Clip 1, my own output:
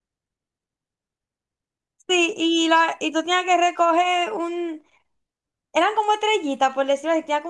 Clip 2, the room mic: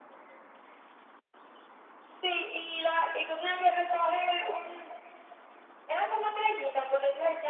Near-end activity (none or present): none